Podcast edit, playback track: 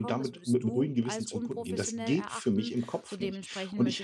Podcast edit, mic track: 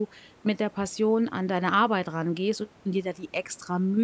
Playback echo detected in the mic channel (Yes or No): No